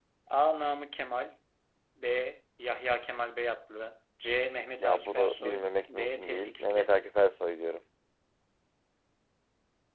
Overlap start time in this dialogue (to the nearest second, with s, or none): 5 s